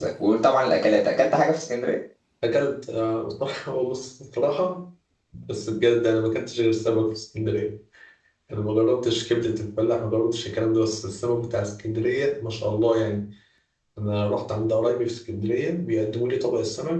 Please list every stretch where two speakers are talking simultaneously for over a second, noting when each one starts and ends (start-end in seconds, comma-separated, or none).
none